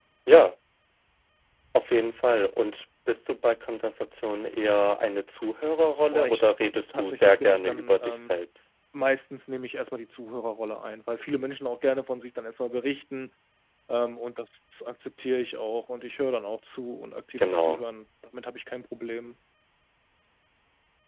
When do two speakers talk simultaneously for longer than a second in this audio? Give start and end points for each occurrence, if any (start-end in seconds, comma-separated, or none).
6.9-8.3